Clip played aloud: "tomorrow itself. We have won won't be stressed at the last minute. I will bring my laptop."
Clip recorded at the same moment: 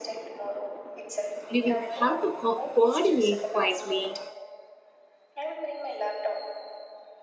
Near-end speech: present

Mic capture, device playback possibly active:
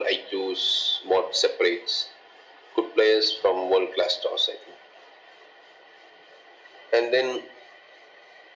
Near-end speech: none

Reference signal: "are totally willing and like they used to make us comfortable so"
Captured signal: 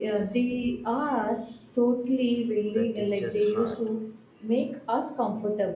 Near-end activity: present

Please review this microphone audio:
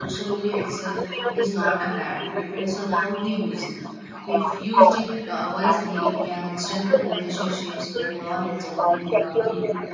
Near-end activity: present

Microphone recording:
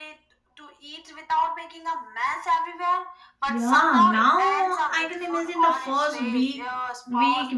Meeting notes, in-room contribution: present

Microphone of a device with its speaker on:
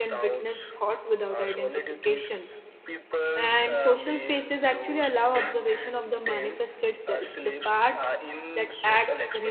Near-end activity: present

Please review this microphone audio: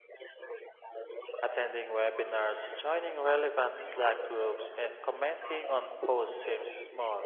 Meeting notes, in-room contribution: present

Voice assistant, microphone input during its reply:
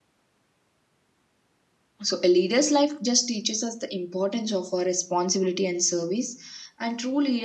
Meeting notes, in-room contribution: present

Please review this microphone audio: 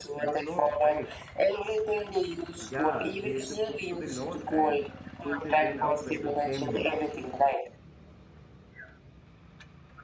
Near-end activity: present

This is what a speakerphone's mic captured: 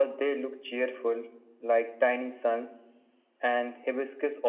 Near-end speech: none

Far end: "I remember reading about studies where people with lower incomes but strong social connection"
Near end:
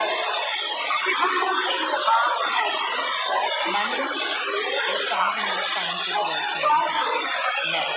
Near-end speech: present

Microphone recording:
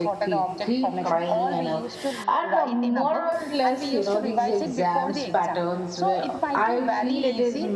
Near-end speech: present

